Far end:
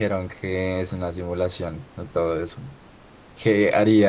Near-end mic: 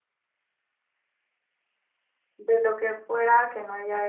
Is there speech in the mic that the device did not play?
Yes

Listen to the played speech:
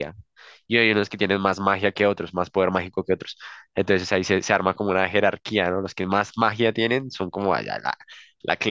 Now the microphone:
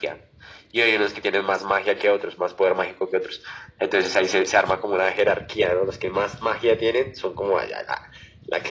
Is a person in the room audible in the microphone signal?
No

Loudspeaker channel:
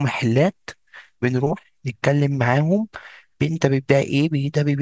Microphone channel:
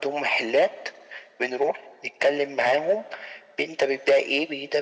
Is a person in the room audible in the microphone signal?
No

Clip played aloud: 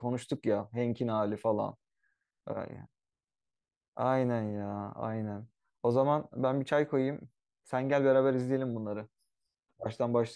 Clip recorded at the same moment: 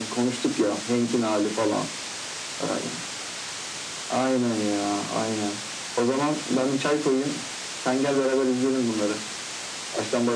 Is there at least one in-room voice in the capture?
No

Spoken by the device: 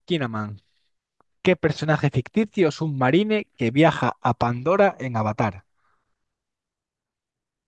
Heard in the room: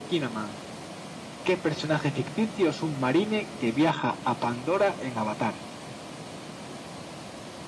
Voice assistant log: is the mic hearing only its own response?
Yes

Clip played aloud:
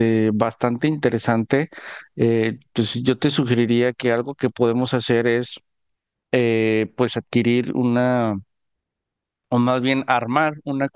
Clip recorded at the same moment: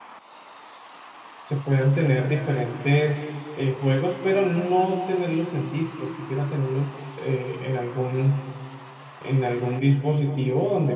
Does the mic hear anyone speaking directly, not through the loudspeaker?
Yes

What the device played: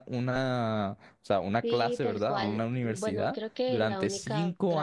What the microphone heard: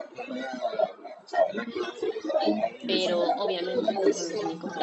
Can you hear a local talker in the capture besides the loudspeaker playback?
Yes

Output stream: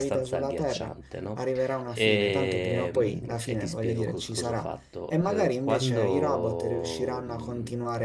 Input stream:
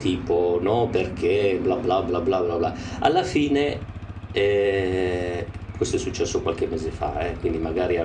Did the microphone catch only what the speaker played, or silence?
No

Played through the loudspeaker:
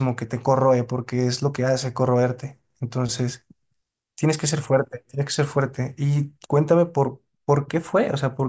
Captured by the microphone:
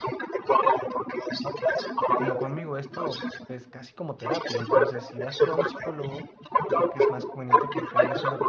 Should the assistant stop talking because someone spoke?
Yes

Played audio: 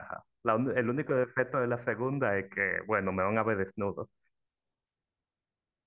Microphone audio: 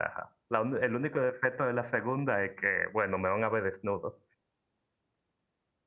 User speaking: No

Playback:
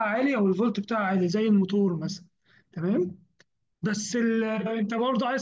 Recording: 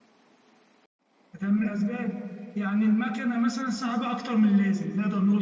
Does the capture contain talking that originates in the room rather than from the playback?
Yes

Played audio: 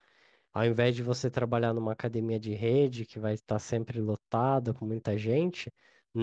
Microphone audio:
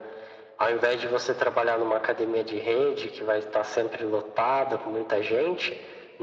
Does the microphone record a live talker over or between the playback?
No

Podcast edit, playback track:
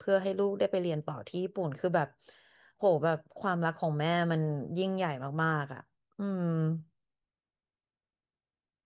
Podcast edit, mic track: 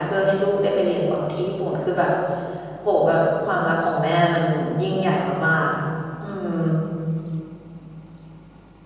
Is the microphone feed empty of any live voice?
Yes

